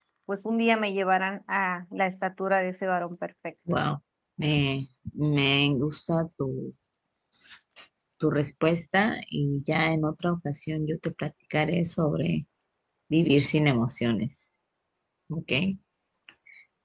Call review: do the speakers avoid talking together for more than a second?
Yes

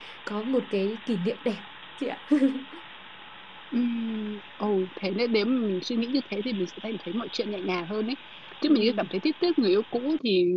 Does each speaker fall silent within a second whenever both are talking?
Yes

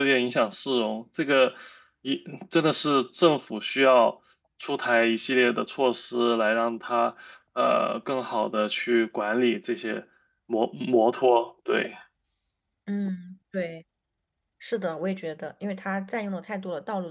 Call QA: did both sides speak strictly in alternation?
Yes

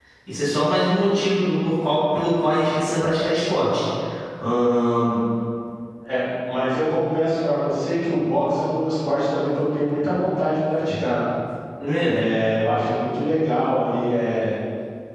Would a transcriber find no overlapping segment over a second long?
Yes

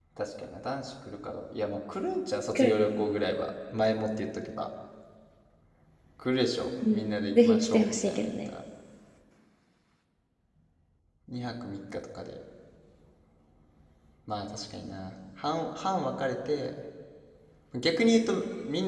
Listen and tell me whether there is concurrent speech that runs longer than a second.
Yes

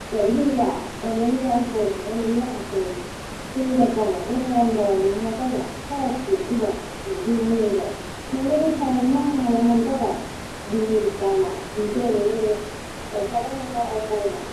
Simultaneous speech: No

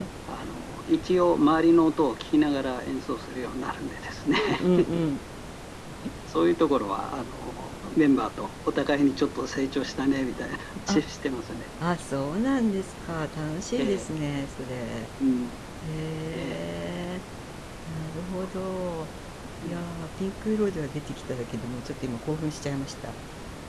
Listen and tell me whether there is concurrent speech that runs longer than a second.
No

